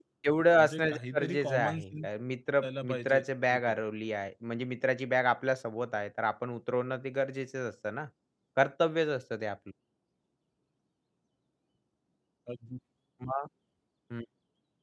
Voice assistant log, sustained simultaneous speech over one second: present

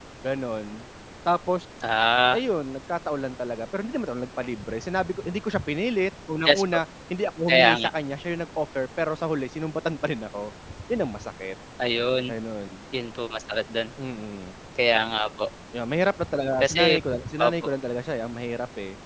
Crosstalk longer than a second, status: none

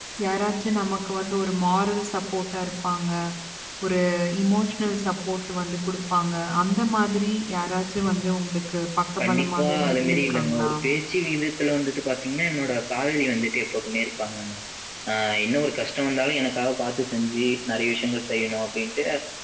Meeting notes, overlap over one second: present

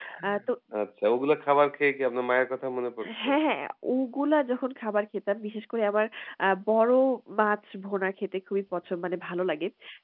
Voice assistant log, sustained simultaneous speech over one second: none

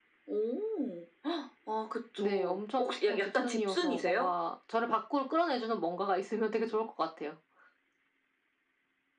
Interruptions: present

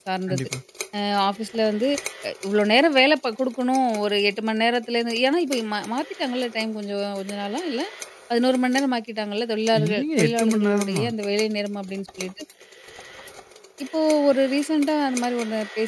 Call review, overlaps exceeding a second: present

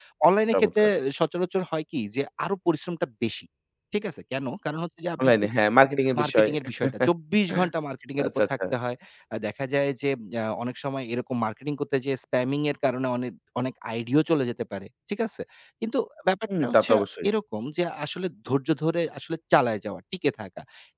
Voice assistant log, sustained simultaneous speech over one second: none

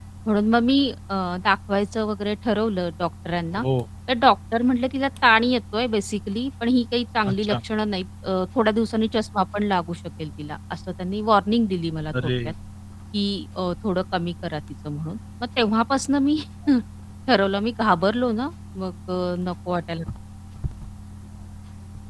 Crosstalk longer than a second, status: none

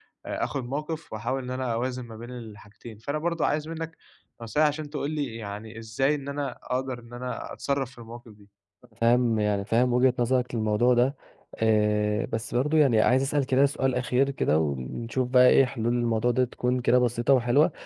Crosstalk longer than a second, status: none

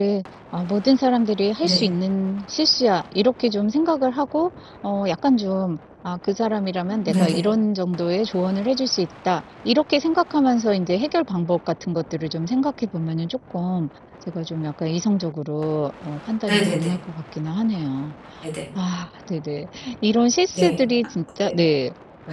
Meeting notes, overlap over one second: none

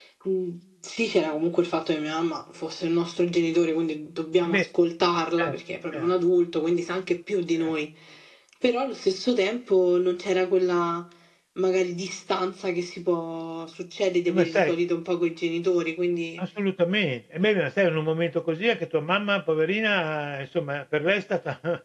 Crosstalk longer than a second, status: none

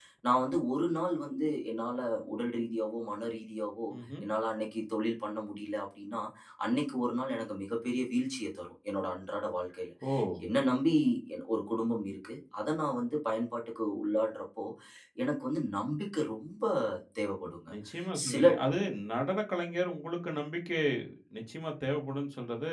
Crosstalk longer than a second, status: none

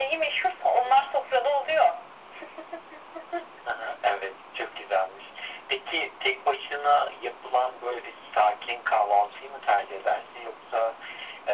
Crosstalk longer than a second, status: none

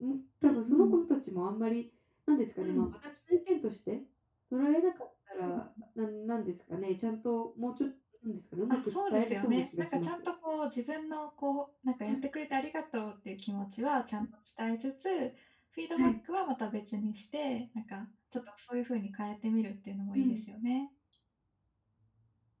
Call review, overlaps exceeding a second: present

